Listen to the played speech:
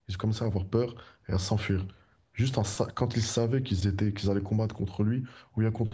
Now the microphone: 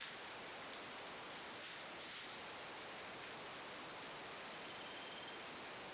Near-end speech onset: none

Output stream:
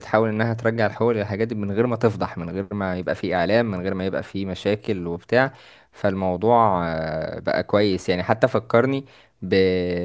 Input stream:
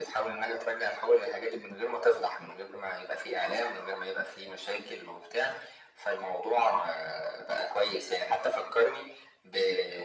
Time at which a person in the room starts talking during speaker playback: none

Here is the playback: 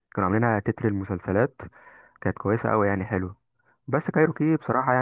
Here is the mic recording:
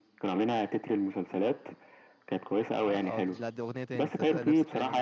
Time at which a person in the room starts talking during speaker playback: 2.8 s

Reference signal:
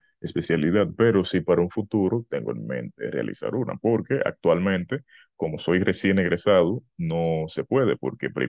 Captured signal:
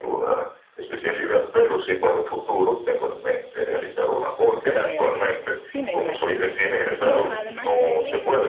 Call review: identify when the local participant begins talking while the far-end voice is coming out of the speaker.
4.5 s

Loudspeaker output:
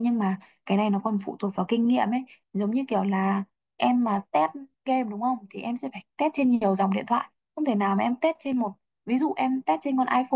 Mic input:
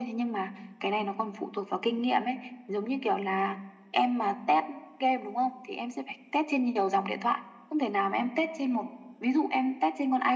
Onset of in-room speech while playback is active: none

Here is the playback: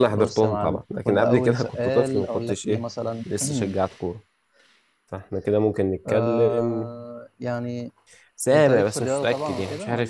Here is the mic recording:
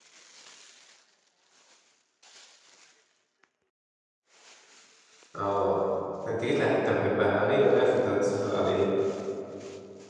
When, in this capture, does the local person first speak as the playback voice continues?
5.4 s

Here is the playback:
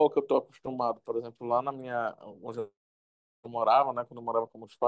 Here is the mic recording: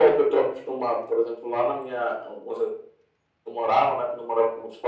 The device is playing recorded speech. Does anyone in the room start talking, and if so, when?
none

